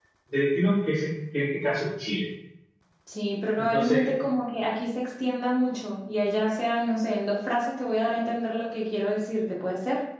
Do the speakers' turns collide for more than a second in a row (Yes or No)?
No